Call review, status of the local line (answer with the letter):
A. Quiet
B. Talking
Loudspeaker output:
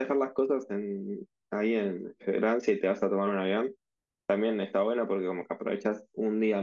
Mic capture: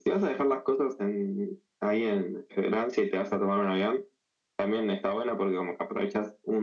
A